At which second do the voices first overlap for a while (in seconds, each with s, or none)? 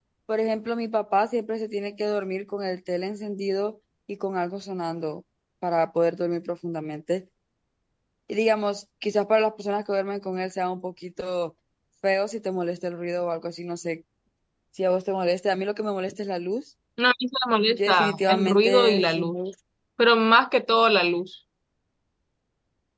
17.8 s